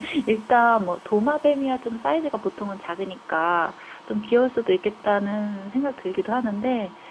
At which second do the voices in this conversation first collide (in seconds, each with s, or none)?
none